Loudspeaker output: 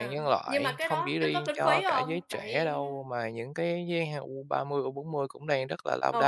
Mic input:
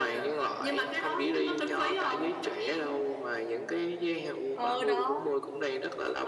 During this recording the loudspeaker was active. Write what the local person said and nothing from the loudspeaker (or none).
ờ, đó,